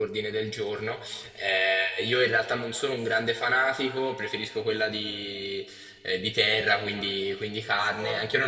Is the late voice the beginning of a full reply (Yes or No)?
No